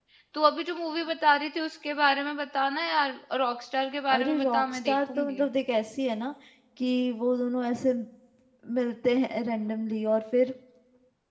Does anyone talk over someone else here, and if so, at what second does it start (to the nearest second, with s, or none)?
4 s